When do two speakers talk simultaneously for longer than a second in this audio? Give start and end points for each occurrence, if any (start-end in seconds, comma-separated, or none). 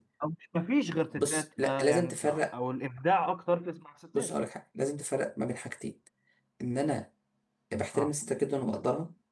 1.2-2.5